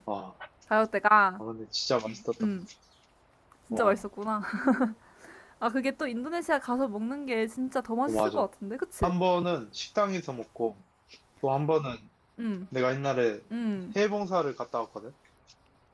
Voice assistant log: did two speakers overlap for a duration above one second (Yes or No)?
No